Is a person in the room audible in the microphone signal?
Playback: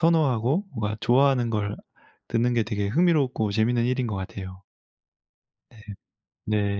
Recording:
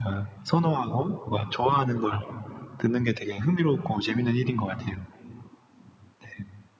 No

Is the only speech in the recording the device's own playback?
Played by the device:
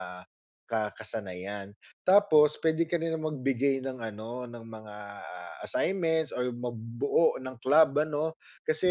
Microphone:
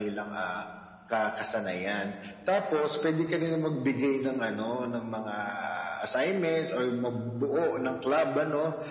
Yes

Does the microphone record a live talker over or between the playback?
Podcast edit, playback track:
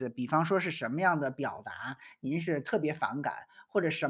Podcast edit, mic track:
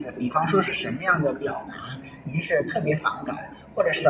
No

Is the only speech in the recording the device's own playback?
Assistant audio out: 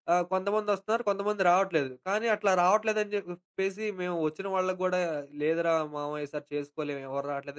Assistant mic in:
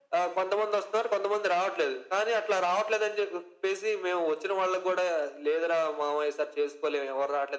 Yes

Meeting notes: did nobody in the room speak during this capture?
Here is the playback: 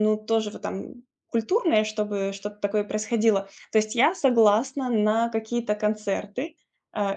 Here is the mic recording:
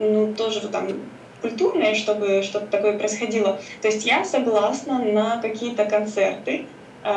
Yes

